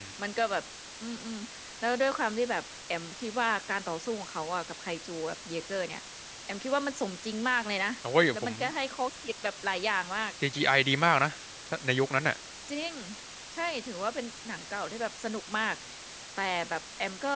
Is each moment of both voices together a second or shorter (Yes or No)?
Yes